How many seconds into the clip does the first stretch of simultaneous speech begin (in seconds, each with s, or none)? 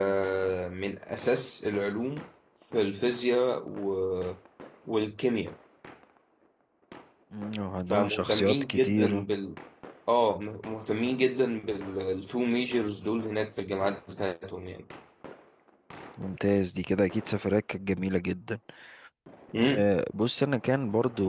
7.9 s